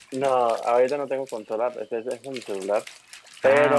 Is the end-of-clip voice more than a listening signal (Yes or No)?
No